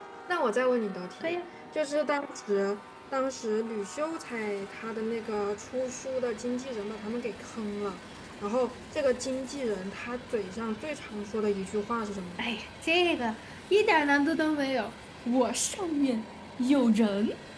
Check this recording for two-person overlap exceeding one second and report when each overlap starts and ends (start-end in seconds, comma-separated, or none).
none